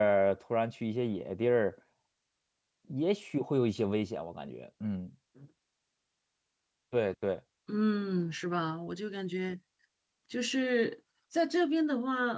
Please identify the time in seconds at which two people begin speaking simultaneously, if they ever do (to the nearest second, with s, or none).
none